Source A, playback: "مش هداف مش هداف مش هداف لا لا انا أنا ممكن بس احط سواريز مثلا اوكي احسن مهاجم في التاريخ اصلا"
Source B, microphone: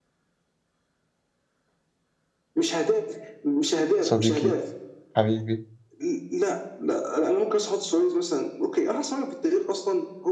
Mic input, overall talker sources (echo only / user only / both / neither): both